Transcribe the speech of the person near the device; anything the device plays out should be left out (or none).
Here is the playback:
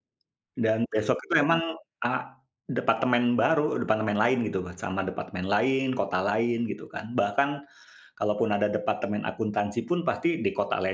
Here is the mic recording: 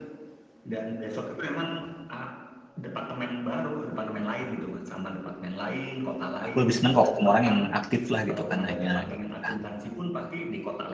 Aku lebih senang kalo kamu orang yang aktif lah gitu kan, nanya, kaya gitu kan.